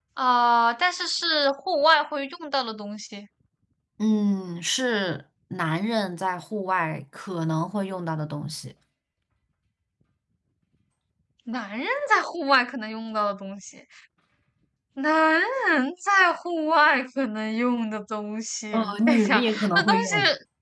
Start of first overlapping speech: 18.7 s

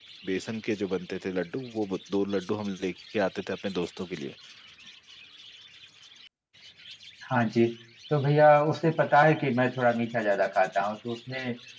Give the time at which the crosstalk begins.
none

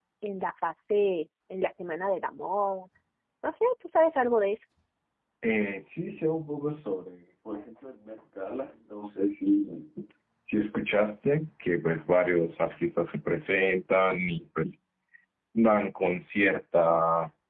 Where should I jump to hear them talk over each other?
none

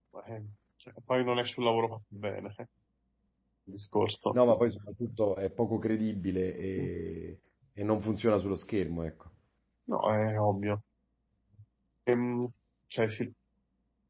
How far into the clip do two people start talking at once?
none

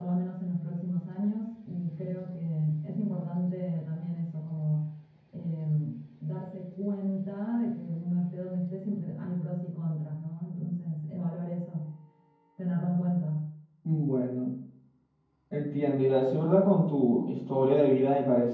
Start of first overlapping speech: none

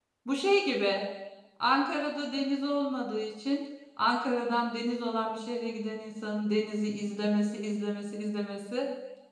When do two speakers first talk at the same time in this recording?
none

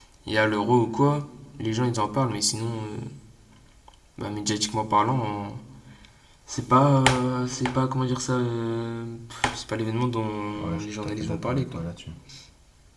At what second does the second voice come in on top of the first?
10.6 s

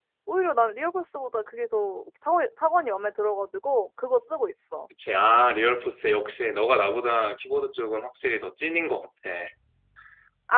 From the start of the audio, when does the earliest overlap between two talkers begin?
none

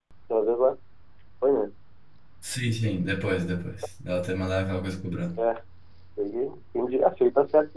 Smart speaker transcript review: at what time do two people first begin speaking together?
none

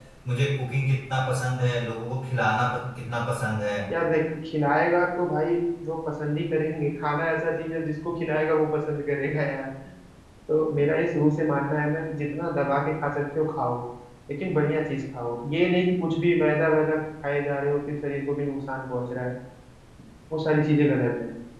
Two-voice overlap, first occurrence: none

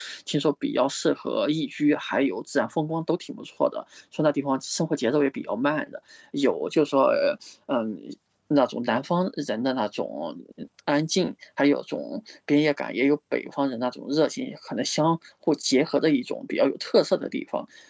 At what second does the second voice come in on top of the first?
none

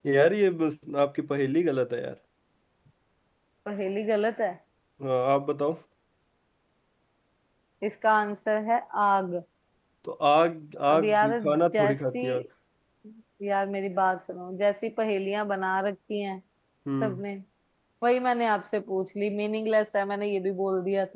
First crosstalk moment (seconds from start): 10.9 s

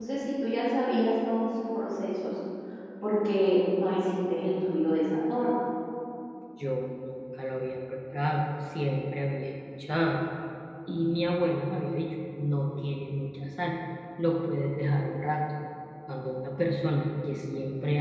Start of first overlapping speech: none

